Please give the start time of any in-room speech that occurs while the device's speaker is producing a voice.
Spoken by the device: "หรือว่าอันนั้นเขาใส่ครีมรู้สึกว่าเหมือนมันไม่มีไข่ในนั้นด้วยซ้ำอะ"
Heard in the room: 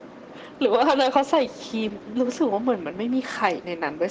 none

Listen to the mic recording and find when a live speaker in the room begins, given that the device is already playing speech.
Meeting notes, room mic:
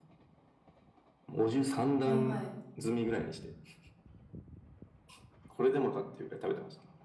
2.0 s

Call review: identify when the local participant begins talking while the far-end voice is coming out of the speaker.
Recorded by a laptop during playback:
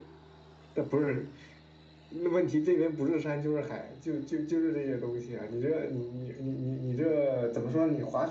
none

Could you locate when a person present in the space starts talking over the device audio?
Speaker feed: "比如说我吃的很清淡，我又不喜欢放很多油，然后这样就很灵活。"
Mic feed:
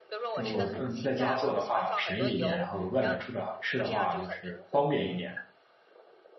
0.3 s

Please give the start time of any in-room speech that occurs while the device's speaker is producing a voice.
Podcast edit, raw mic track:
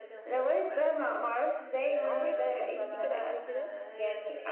2.1 s

